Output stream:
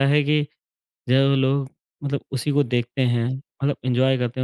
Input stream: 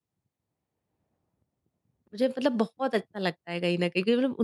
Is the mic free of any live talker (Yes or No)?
No